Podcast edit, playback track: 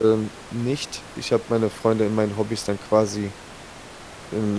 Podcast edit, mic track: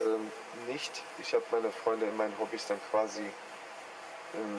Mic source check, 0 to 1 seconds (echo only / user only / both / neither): echo only